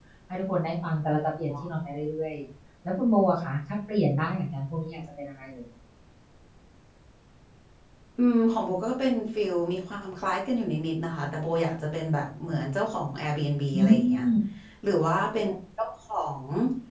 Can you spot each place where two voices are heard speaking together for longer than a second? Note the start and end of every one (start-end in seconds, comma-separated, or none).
none